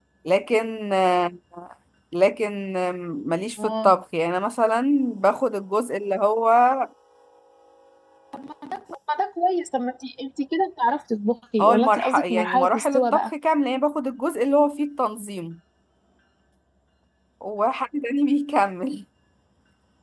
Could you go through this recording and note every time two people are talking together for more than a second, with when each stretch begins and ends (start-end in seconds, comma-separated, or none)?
11.6-13.3